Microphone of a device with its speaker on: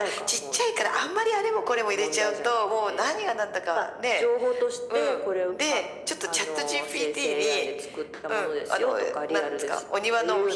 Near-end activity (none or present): none